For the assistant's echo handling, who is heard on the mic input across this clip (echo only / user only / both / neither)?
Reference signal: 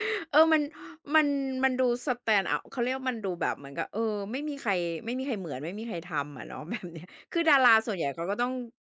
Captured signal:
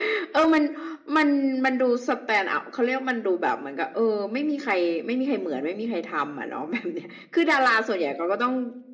echo only